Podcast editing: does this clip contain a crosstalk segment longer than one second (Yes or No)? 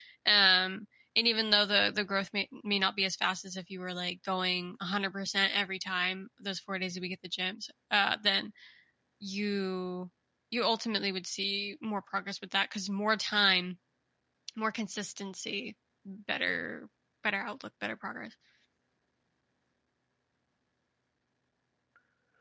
No